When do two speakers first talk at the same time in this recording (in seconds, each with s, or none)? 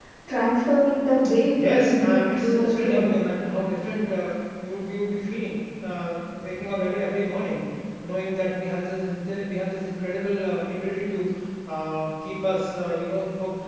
1.5 s